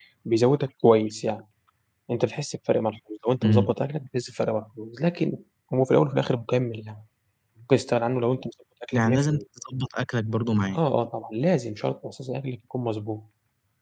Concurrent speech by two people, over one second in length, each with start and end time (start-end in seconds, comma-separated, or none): none